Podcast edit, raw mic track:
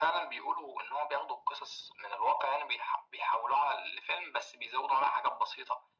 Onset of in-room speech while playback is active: none

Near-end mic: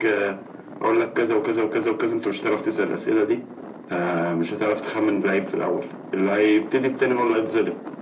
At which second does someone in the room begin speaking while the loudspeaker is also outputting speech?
none

